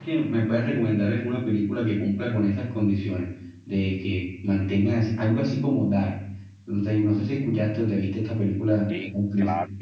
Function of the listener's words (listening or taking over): taking over